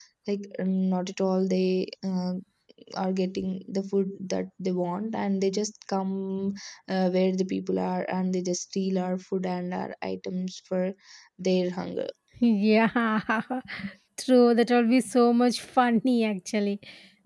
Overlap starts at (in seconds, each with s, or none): none